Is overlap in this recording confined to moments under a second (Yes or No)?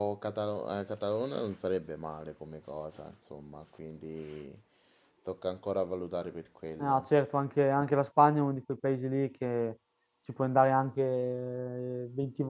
Yes